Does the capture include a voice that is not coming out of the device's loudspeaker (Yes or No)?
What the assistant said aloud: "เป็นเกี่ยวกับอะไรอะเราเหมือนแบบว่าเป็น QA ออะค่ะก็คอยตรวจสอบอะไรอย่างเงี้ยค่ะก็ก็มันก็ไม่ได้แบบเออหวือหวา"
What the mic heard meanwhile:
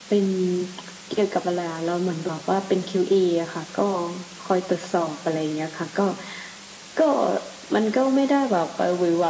No